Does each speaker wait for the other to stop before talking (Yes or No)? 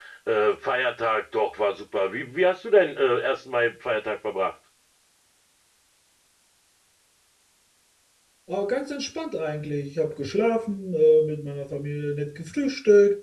Yes